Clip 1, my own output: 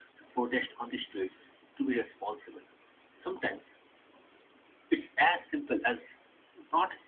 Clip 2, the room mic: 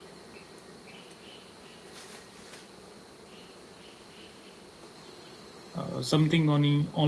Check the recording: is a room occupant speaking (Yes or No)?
Yes